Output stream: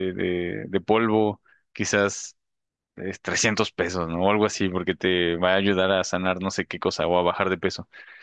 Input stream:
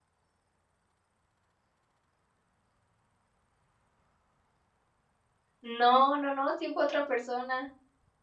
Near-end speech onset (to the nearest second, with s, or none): 6 s